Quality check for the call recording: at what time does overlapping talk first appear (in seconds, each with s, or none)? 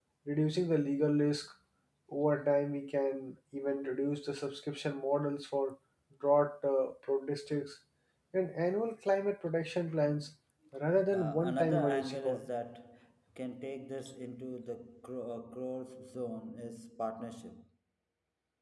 11.1 s